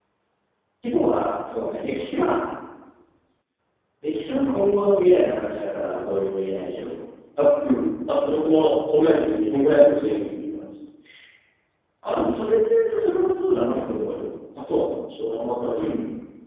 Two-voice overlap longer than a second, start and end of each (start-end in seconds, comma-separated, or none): none